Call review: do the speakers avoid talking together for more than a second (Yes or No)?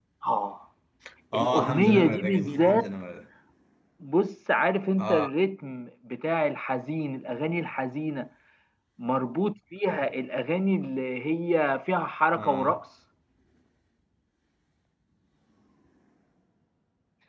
No